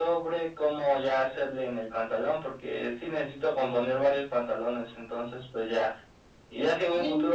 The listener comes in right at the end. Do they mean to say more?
No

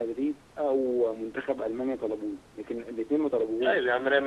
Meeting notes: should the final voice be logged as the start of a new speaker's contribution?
Yes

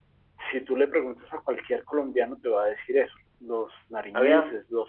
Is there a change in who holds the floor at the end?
No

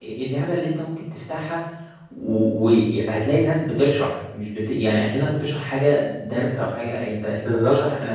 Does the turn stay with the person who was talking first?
Yes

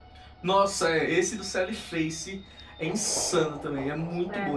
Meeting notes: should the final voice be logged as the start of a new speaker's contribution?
No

